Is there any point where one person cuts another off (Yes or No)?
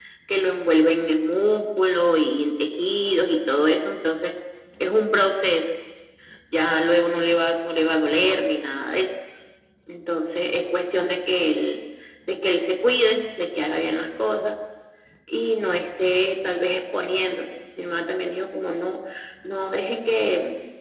No